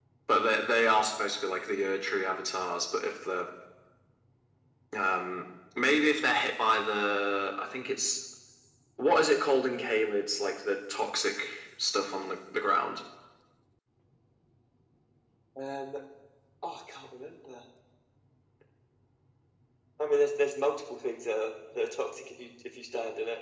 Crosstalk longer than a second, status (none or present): none